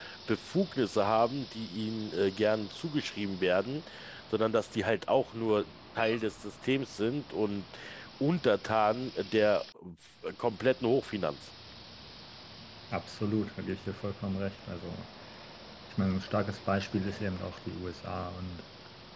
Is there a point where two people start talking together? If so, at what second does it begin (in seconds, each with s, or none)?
none